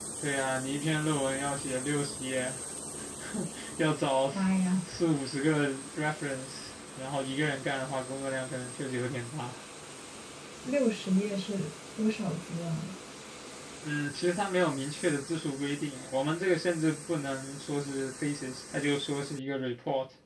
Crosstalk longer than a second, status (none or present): none